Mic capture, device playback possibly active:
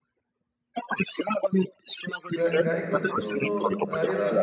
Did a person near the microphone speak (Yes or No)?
Yes